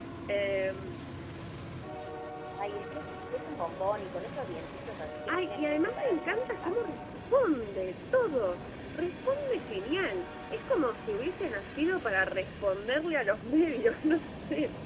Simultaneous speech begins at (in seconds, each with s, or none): 5.3 s